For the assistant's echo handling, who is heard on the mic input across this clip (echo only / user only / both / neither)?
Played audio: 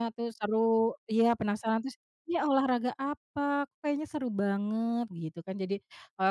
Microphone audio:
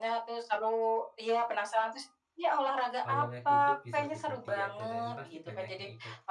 both